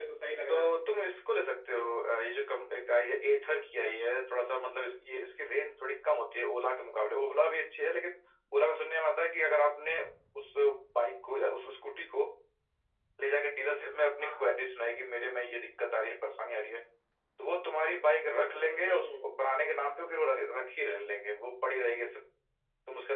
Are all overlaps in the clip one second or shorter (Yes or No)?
Yes